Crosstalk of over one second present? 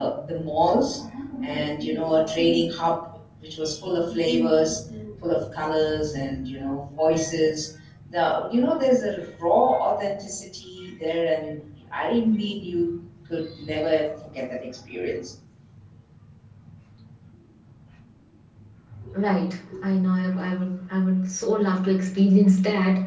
No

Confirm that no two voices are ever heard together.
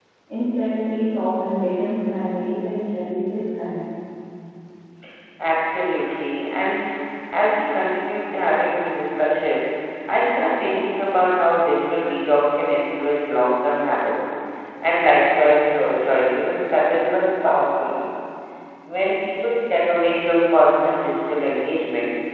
Yes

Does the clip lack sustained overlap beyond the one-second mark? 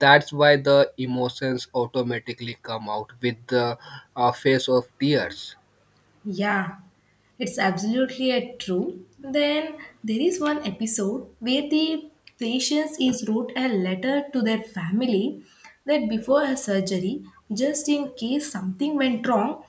Yes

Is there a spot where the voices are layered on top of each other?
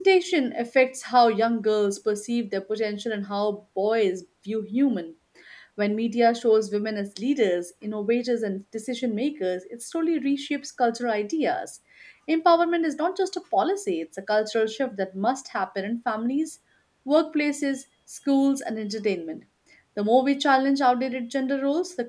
No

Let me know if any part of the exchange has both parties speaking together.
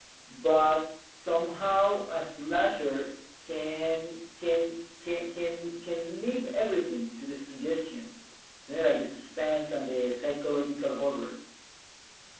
No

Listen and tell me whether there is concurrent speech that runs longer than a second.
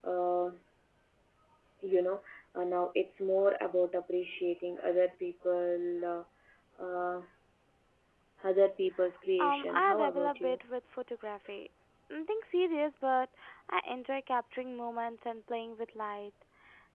Yes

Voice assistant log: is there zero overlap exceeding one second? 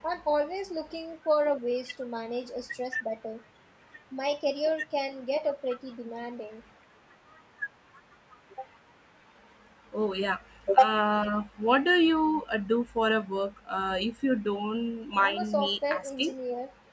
No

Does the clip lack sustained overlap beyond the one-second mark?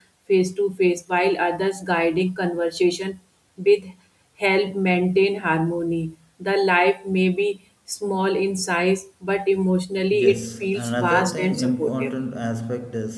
No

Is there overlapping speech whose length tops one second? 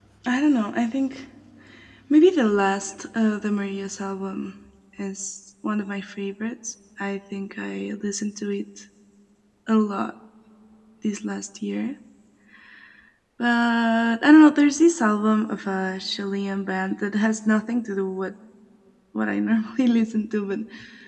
No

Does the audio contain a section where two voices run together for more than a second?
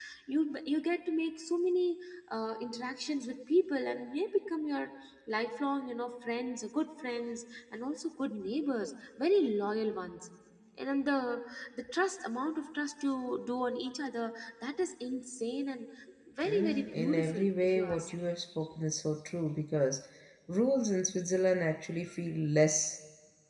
Yes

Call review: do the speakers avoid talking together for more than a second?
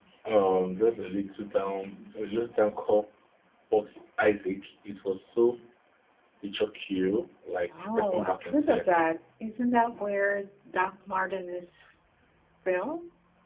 No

